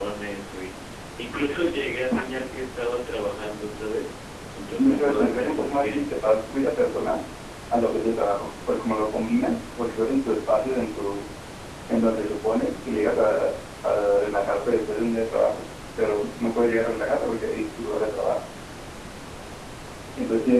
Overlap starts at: 5 s

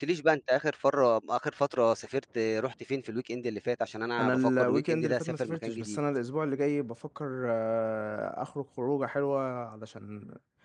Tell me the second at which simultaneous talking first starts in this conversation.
4 s

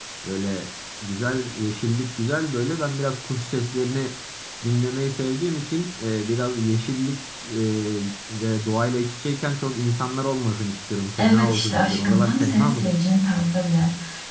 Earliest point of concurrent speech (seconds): 11 s

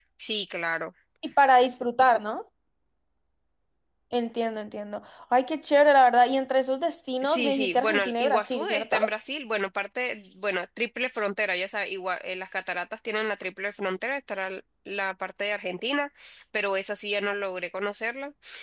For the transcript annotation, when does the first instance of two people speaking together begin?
7 s

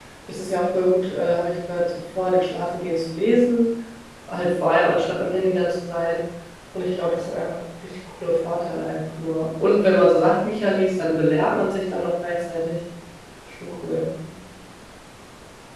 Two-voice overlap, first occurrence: none

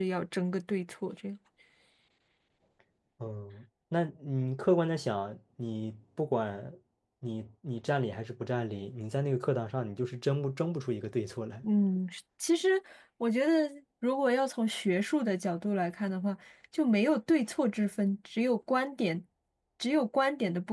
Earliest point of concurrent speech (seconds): none

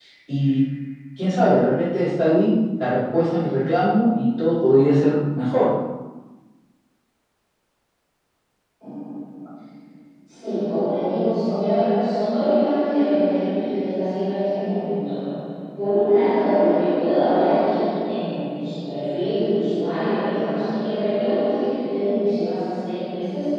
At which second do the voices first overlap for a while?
none

